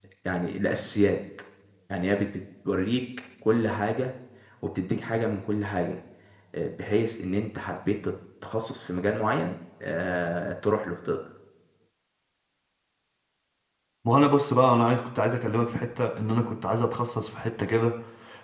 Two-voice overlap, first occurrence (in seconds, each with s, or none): none